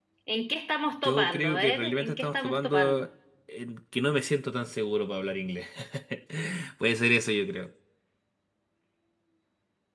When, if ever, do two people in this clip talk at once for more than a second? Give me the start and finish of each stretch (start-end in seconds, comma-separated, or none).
1.0-3.0